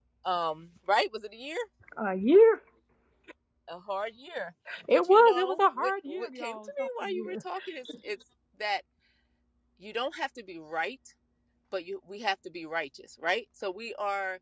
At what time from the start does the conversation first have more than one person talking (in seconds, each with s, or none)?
4.7 s